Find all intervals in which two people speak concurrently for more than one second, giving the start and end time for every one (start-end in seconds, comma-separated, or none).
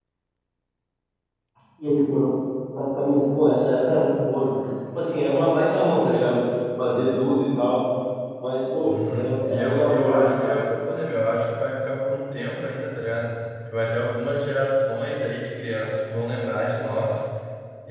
8.9-10.6